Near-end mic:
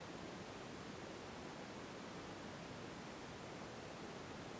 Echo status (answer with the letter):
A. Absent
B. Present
A